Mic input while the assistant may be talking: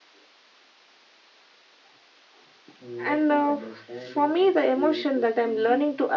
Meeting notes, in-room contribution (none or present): present